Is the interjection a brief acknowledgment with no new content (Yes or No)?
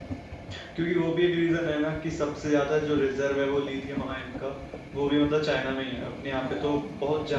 Yes